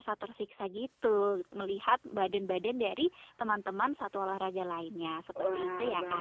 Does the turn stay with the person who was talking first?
No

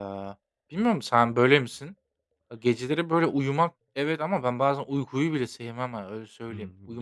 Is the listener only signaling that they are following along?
No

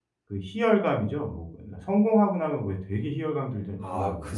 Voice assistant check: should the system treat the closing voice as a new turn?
Yes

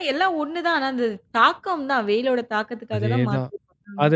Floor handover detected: Yes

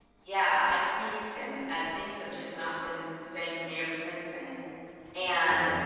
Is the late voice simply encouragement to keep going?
Yes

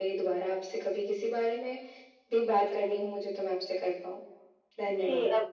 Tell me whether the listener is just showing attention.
No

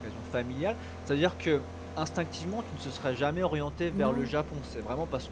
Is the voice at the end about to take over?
No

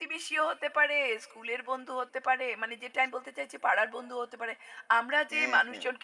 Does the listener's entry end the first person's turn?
No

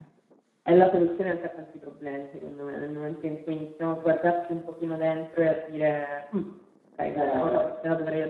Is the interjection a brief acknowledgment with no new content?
Yes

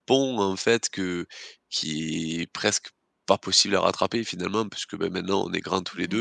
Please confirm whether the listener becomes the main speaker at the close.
No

